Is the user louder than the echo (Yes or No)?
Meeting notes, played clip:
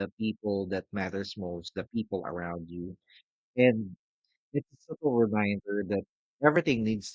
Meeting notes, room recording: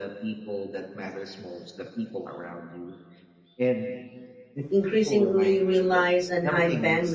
Yes